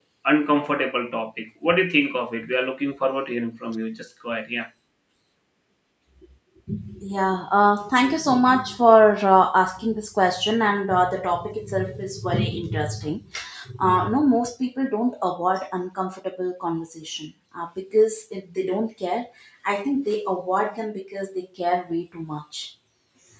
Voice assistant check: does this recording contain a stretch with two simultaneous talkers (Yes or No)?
No